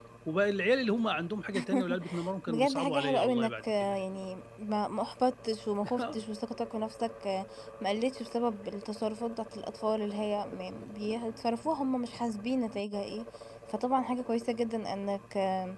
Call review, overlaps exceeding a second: present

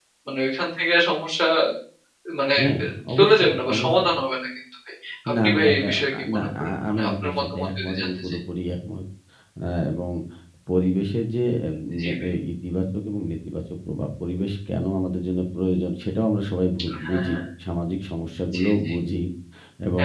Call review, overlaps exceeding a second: present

